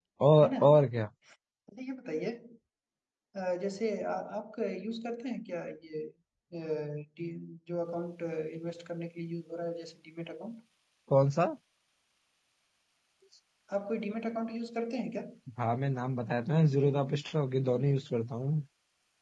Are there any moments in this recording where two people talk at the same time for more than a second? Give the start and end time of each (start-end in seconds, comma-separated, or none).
none